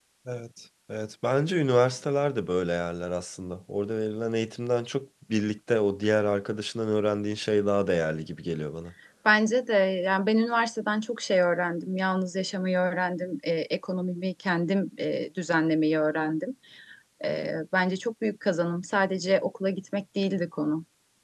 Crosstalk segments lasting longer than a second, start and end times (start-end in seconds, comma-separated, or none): none